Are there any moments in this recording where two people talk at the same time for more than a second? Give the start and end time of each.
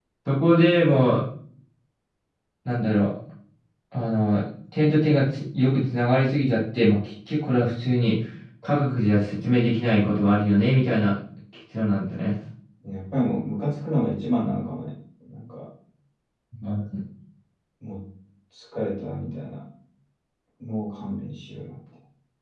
none

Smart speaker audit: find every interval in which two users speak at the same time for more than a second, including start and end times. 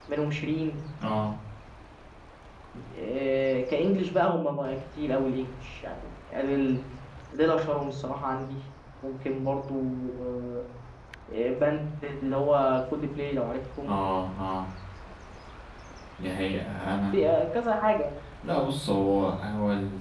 none

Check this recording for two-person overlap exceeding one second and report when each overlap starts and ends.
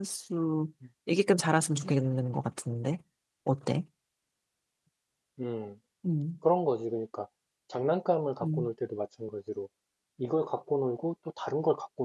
none

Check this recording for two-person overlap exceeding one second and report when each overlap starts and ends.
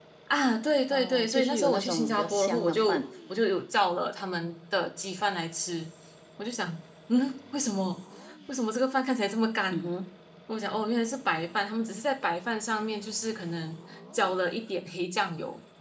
0.9-3.0

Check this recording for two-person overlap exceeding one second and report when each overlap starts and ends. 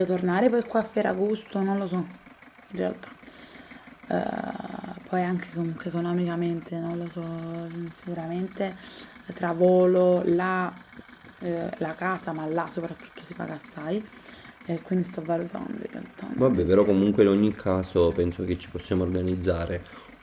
none

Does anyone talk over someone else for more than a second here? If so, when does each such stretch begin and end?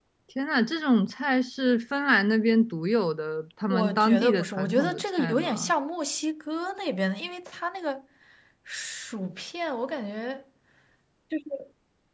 3.7-5.7

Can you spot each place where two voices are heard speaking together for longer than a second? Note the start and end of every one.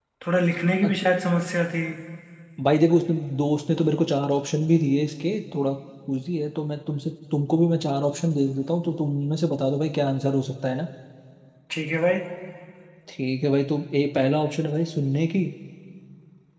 none

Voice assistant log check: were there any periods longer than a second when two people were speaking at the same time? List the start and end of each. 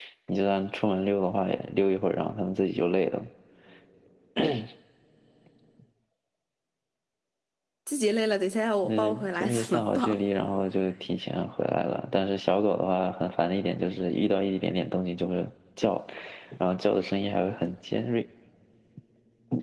8.8-10.2

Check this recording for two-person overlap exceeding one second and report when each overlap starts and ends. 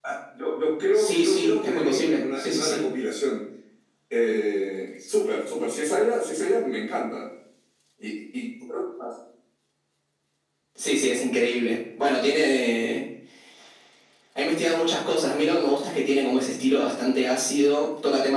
0.9-2.8

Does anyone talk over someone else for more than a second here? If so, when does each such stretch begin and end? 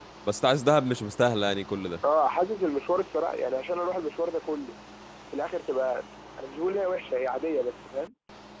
none

